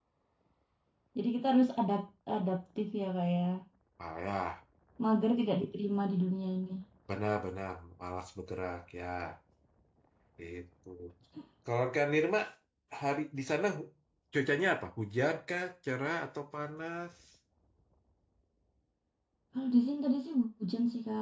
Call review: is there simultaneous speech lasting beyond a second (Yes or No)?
No